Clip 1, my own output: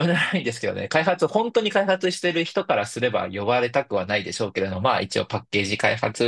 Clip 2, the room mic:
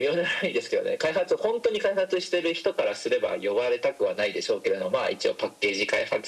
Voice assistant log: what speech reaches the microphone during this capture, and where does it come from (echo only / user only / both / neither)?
echo only